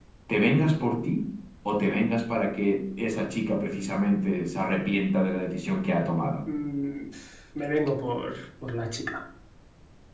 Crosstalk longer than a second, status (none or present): none